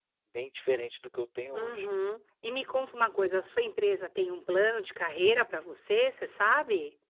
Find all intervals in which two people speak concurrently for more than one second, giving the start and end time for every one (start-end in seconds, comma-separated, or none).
none